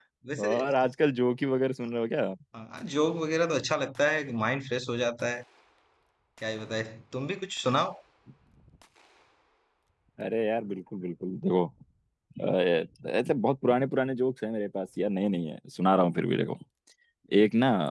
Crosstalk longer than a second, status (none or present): none